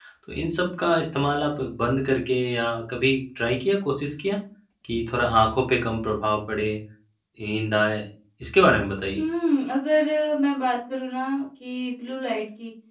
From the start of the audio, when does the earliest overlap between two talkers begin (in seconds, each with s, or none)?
none